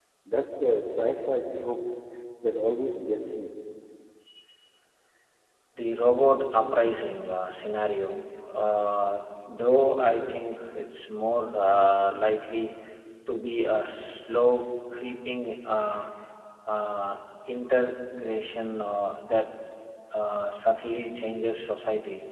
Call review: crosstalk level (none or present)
none